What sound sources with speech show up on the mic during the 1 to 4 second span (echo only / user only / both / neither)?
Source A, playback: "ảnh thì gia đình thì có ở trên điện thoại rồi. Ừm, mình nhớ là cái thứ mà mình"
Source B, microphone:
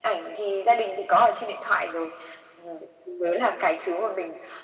echo only